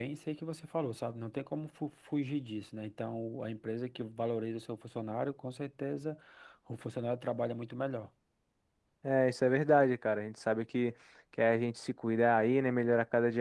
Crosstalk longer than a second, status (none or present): none